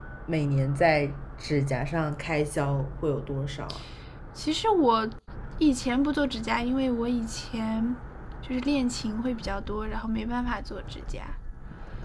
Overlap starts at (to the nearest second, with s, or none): none